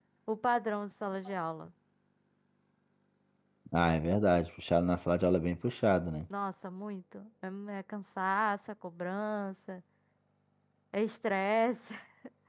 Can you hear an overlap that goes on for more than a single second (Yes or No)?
No